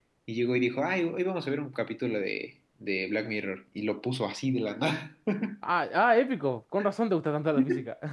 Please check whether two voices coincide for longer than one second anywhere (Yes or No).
No